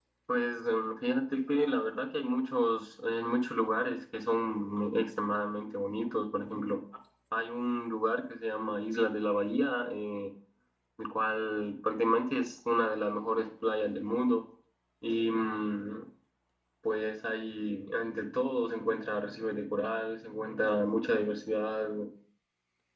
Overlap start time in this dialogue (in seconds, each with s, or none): none